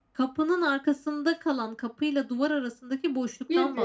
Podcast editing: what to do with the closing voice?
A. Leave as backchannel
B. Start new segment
B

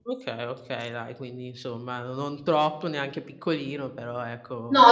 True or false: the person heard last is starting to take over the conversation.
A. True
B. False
A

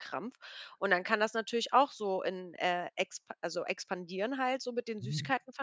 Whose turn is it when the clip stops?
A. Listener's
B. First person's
B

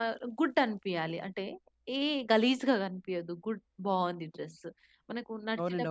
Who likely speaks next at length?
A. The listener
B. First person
B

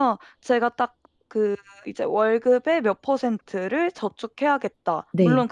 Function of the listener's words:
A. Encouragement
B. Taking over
A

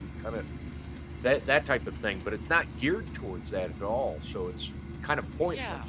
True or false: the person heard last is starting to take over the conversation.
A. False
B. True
B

